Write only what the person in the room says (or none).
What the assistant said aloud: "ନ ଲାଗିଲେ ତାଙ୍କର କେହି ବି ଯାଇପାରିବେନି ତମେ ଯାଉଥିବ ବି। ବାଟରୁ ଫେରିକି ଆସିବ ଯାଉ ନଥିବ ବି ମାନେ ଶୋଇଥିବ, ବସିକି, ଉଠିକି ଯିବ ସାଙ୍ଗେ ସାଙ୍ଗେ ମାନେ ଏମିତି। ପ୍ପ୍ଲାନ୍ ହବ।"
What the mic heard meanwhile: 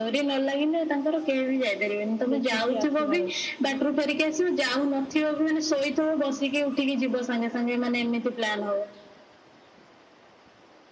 ଦେଖିକି ଆସିବାର ଅଛି।